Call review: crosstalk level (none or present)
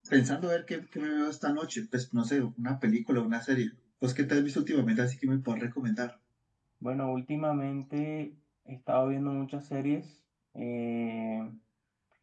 none